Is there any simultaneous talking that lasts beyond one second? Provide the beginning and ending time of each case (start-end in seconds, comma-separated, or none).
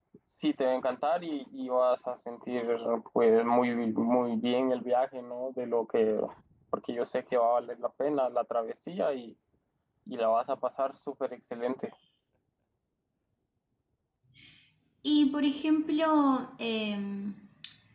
none